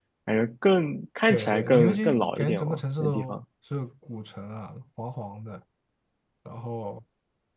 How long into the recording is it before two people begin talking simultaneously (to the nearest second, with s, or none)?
1 s